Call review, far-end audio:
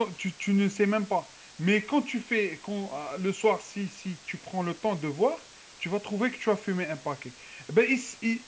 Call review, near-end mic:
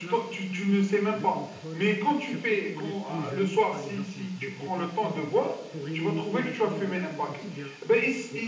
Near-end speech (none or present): present